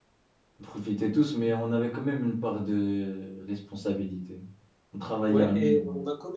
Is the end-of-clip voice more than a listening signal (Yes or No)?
Yes